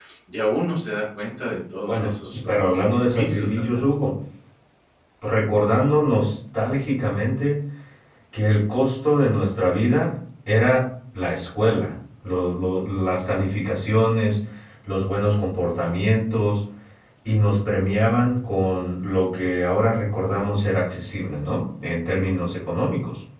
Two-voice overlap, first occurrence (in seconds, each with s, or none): 1.9 s